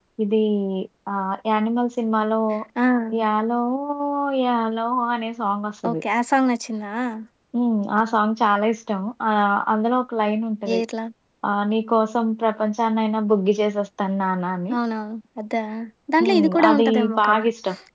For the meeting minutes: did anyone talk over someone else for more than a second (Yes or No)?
Yes